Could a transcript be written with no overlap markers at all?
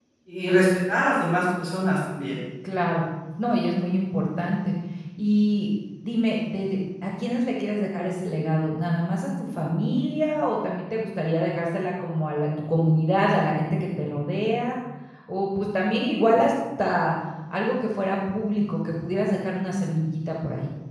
Yes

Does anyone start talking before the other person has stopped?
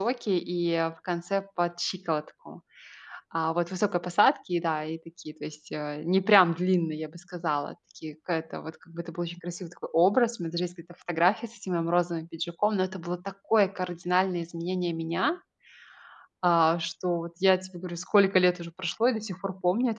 No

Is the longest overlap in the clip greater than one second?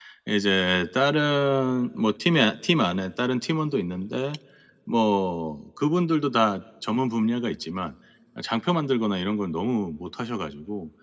No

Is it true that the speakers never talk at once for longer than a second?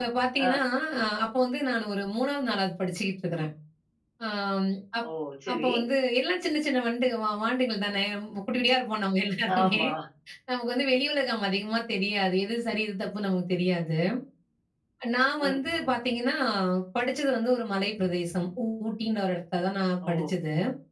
Yes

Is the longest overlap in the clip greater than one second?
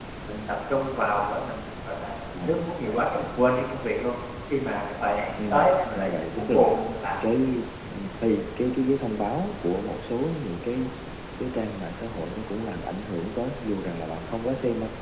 Yes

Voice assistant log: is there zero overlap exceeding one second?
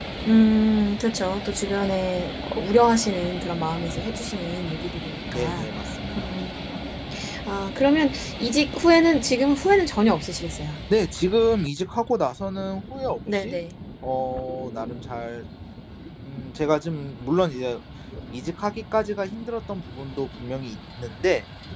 Yes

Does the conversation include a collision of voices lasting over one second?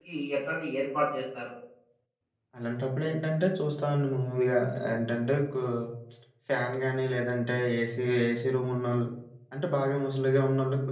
No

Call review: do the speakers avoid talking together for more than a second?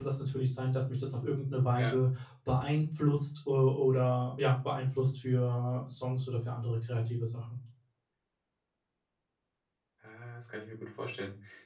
Yes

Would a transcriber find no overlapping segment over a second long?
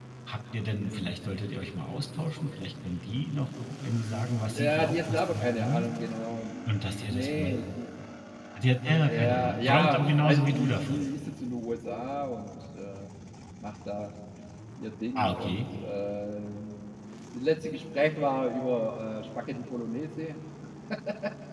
No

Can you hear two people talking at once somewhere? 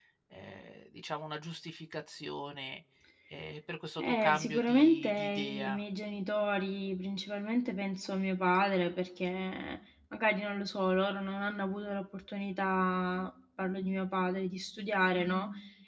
Yes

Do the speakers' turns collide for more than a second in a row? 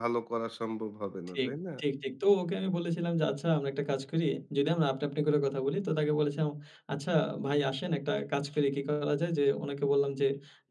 No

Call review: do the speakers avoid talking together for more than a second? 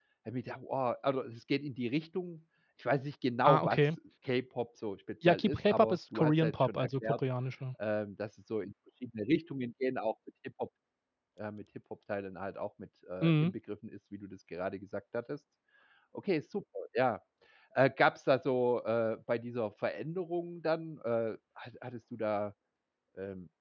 No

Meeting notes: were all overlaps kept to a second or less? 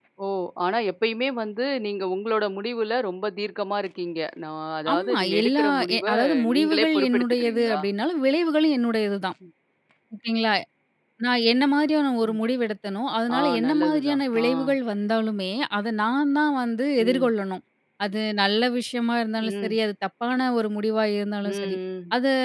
No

